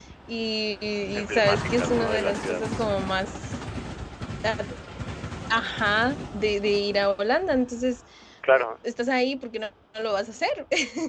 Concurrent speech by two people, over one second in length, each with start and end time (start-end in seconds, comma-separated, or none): 1.1-2.6